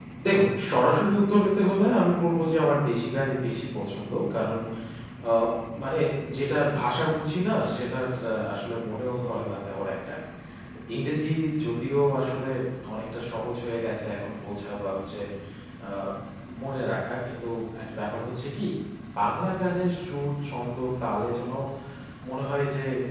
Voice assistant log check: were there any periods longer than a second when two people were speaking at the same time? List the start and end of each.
none

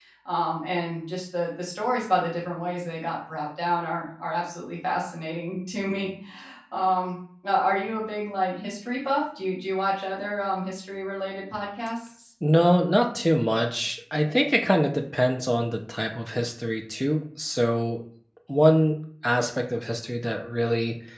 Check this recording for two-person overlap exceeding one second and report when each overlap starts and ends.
none

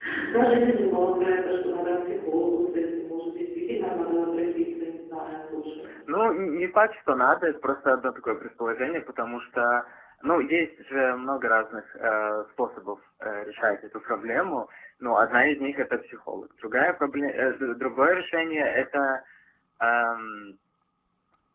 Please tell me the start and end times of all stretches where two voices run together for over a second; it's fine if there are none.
none

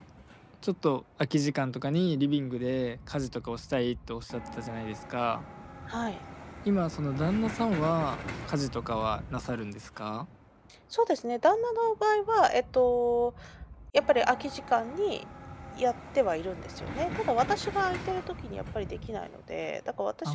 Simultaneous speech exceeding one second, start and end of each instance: none

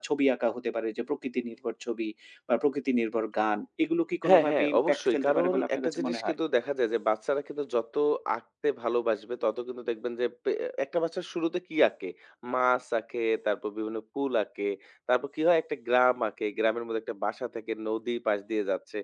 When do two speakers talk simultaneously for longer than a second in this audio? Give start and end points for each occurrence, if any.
4.3-6.3

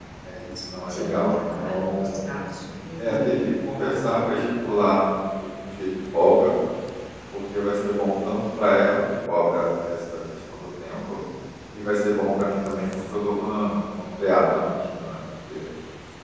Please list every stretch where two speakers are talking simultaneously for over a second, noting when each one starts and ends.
0.9-2.2

